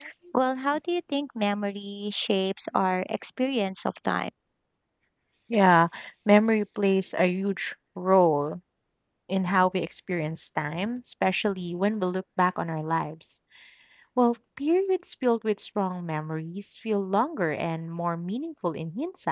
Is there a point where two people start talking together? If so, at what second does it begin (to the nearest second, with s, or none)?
none